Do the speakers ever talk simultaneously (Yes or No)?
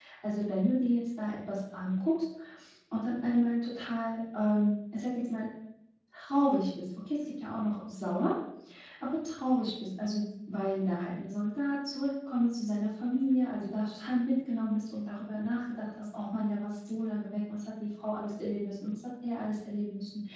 No